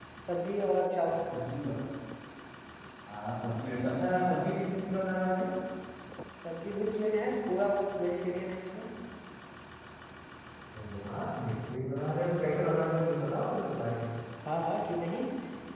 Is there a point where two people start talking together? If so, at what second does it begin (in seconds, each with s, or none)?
none